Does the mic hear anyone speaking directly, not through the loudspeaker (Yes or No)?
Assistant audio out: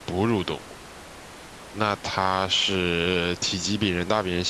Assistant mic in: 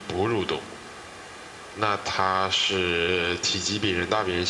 No